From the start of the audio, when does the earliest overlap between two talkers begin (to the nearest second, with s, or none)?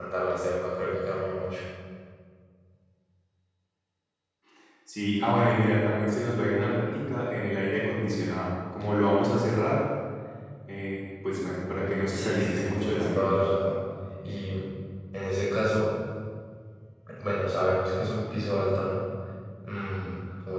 12 s